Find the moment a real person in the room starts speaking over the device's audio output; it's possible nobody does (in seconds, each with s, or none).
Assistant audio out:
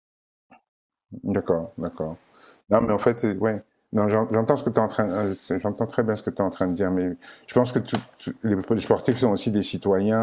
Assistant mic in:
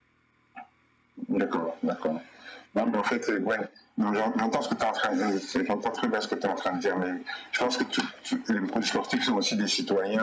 none